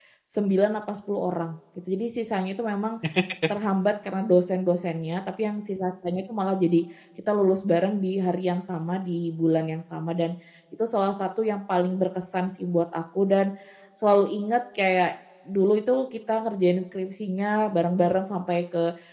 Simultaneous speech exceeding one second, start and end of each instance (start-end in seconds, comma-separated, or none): none